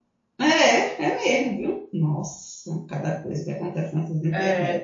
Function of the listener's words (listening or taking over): taking over